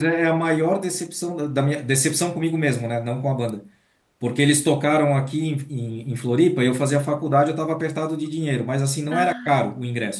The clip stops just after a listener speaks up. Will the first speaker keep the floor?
Yes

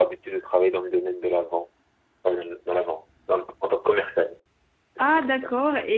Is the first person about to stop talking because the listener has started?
Yes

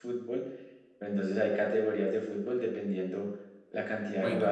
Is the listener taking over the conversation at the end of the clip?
No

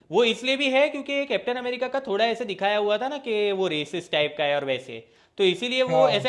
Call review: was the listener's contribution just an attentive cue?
Yes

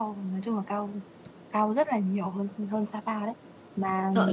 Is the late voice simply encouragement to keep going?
No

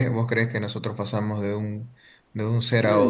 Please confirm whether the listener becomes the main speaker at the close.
Yes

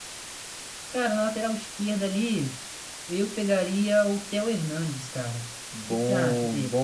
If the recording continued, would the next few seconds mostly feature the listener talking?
Yes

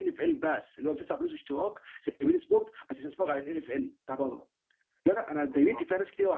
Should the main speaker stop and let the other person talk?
No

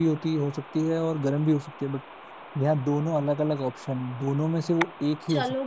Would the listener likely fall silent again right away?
No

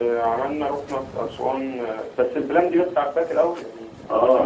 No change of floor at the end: No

